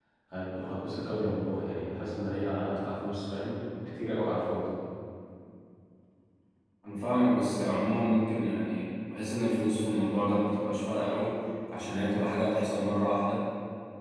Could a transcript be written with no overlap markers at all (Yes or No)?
Yes